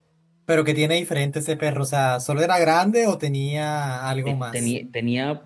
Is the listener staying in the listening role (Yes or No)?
No